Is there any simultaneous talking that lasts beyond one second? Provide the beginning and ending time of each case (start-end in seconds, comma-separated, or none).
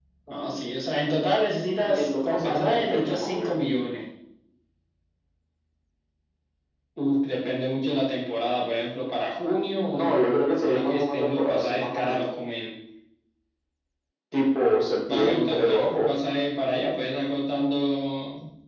1.8-3.5, 9.9-12.2, 15.1-16.3